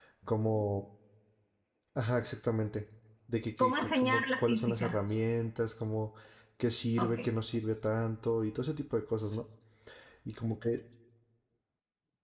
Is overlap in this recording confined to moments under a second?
No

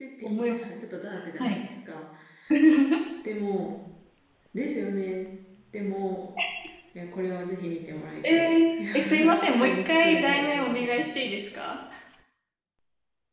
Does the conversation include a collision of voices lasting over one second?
Yes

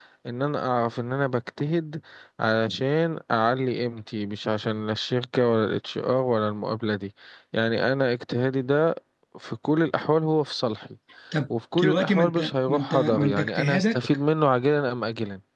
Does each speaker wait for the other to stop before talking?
No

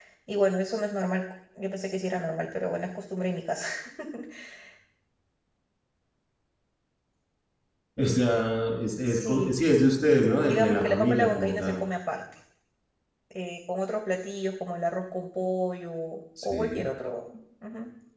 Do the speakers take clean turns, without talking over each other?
No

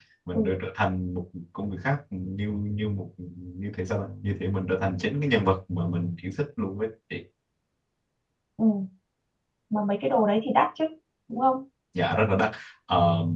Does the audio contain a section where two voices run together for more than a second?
No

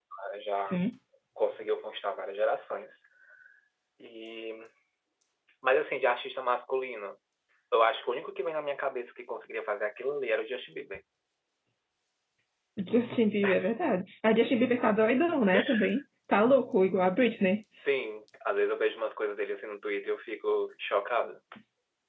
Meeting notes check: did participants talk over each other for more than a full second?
No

